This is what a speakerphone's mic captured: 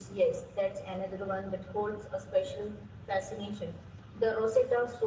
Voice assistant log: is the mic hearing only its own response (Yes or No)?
Yes